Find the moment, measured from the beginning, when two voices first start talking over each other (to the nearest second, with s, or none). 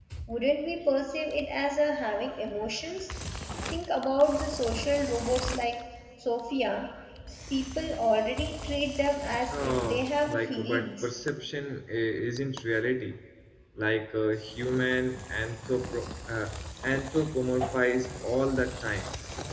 10 s